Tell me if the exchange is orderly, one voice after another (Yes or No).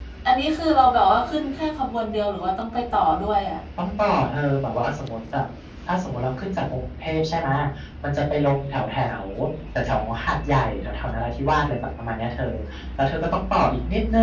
Yes